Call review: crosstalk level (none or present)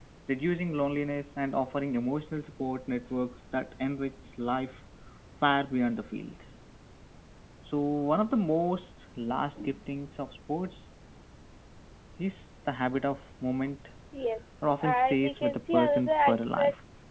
present